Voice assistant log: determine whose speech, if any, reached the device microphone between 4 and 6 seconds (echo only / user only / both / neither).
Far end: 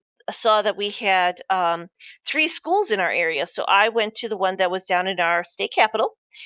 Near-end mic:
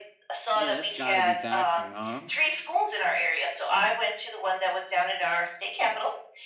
echo only